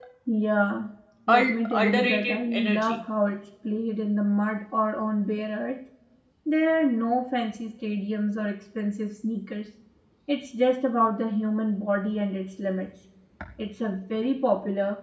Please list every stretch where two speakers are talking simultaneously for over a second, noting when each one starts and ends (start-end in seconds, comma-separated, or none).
1.3-3.0